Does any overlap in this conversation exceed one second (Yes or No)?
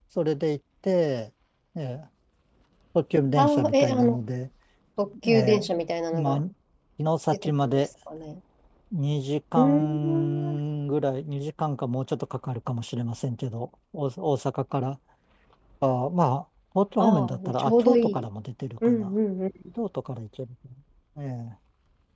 Yes